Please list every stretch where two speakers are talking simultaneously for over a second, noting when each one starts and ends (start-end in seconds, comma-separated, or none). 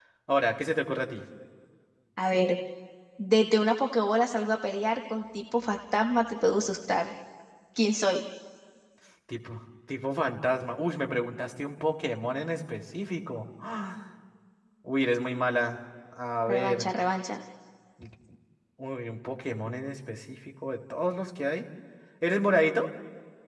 none